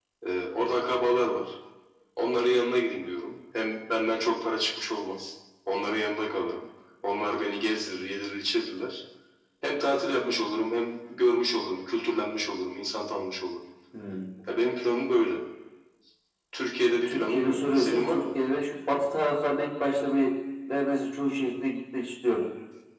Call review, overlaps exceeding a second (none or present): present